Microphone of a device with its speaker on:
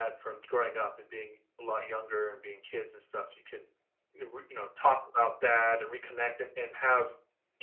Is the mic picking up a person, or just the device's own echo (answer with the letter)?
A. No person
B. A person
A